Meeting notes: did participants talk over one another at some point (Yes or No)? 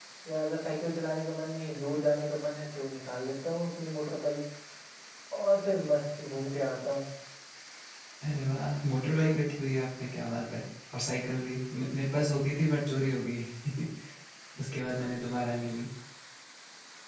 No